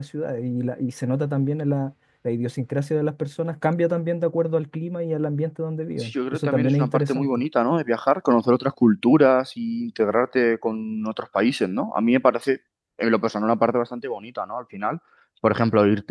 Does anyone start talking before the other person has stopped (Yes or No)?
Yes